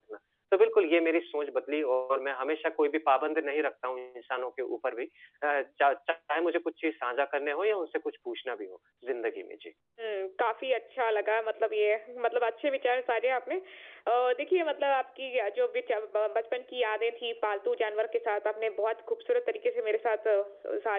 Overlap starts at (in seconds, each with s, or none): none